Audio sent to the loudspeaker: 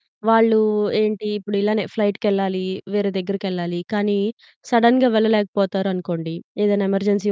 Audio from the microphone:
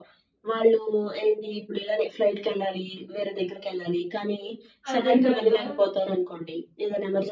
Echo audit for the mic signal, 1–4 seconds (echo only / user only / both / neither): echo only